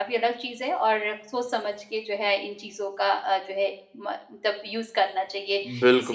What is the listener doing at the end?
taking over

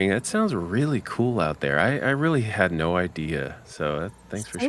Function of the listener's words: taking over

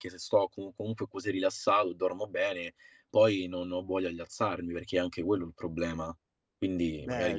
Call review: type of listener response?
taking over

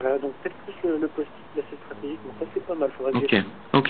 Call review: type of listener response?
taking over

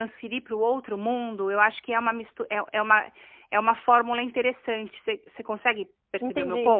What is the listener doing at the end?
taking over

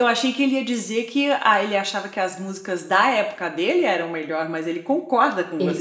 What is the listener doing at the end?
taking over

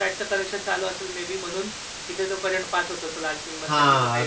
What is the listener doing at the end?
taking over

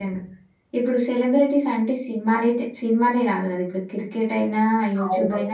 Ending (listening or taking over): listening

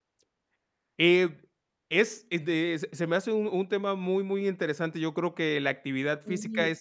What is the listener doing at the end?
listening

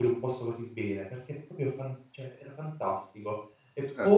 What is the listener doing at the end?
taking over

